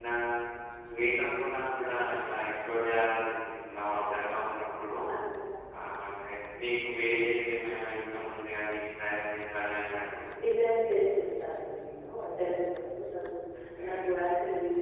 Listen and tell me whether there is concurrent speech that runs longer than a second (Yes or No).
No